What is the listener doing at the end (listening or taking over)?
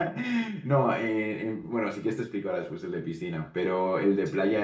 listening